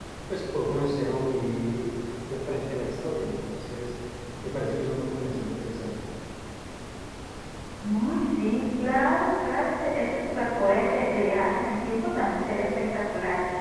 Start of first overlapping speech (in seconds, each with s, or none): none